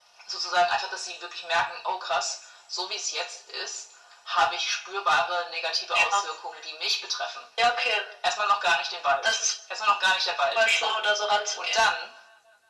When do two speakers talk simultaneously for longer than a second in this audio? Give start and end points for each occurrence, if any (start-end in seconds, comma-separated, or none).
none